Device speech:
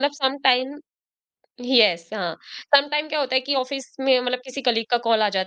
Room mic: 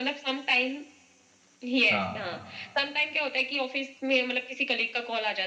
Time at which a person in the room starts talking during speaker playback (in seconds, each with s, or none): 1.9 s